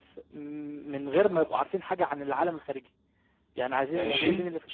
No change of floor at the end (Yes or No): Yes